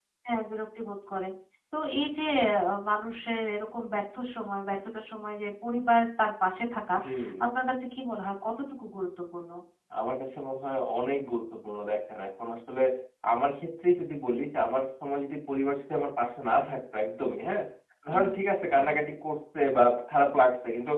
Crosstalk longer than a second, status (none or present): none